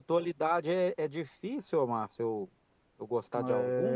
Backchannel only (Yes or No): No